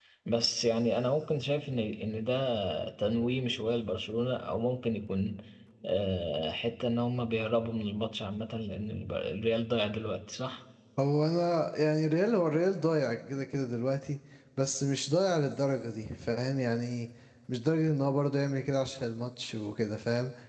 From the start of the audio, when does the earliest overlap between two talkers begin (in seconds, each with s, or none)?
none